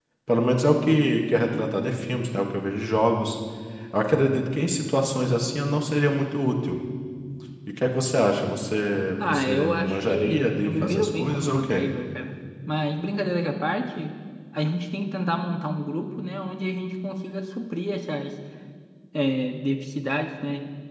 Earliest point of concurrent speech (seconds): 9.2 s

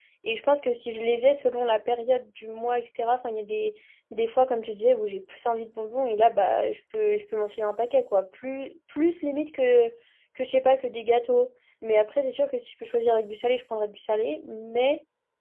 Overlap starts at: none

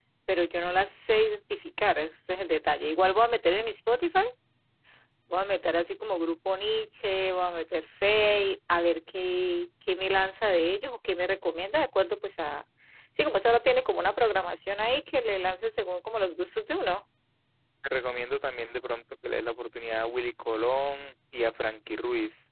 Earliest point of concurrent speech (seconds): none

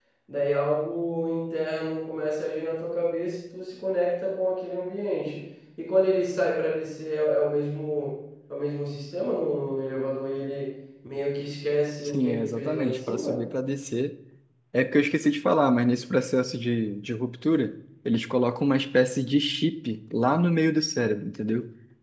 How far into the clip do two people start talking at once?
12.0 s

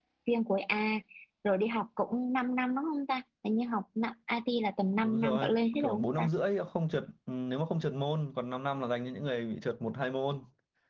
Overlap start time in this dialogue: 5.0 s

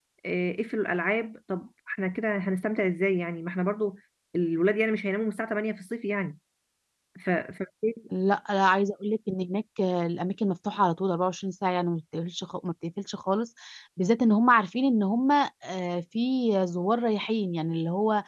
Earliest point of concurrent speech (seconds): none

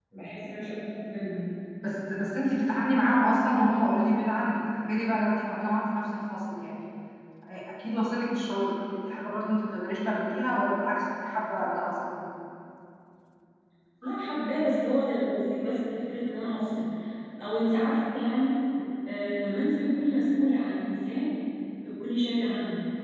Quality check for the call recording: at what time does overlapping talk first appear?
none

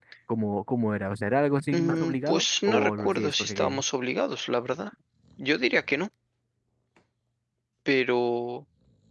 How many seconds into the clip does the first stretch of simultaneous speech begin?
1.7 s

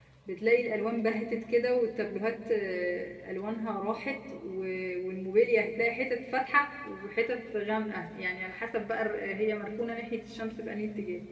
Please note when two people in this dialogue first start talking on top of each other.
none

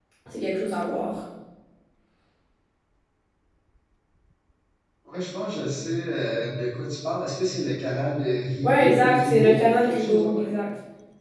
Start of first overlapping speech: 8.6 s

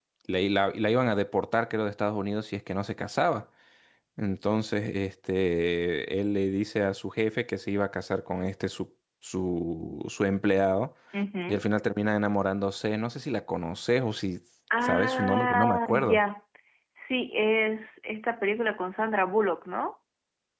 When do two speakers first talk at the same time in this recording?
14.8 s

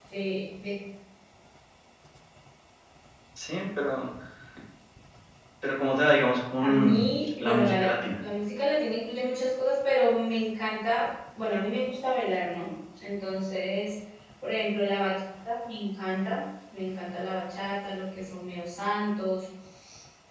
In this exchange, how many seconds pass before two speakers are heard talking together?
6.6 s

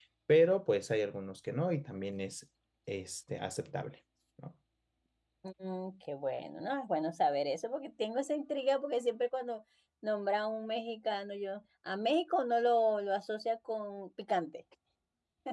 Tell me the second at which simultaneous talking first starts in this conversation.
none

